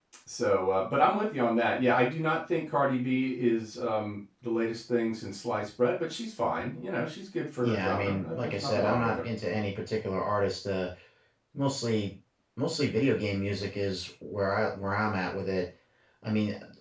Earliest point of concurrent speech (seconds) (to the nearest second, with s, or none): 8 s